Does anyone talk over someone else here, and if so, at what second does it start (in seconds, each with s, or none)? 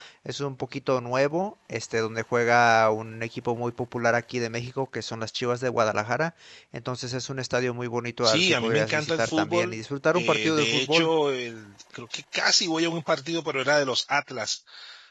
8.2 s